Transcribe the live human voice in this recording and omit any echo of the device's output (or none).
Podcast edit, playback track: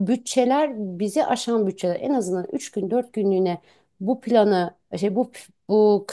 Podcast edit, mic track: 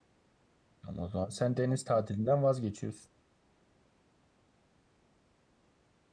Ama o zaman sen deniz tatilinden vazgeçiyorsun.